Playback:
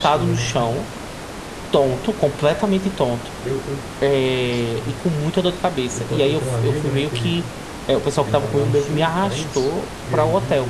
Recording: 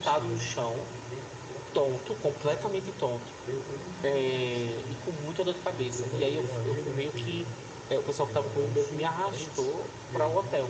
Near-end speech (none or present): present